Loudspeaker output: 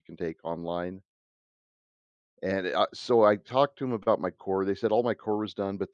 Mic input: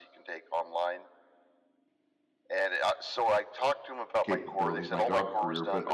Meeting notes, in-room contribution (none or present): present